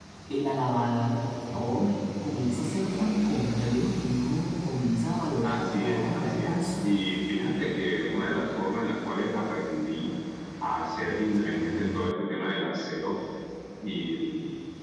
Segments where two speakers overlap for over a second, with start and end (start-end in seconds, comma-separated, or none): 5.4-6.7